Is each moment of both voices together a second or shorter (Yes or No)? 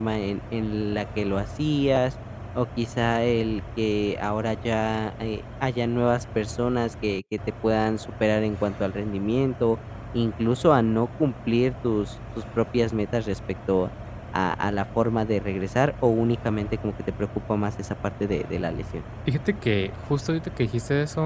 Yes